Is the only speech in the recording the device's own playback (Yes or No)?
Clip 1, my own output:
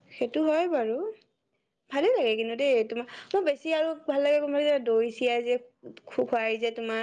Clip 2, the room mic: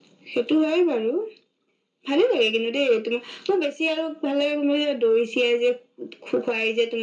Yes